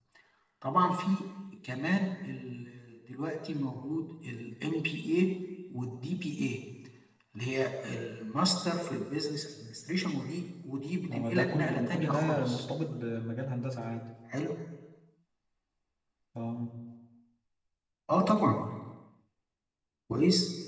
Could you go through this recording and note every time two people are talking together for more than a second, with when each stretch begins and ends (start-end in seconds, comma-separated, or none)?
11.1-12.6